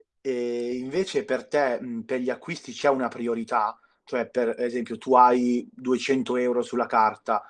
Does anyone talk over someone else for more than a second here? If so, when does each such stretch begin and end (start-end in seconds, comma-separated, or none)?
none